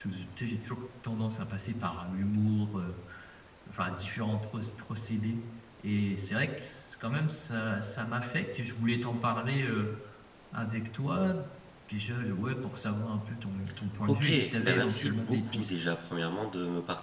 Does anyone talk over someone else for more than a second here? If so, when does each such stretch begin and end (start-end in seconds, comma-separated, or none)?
14.1-15.7